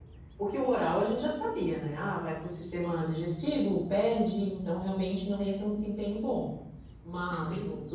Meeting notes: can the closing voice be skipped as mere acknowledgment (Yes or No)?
Yes